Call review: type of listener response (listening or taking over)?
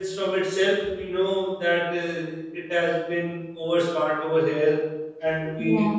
listening